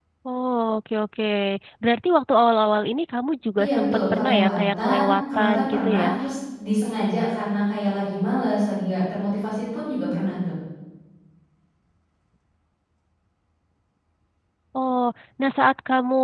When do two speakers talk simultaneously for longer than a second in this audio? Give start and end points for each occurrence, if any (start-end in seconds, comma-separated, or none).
3.6-6.1